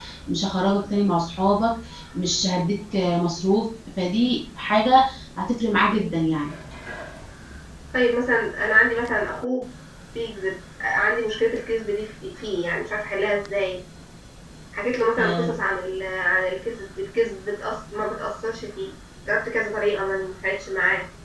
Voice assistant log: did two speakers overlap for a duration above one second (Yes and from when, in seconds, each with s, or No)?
No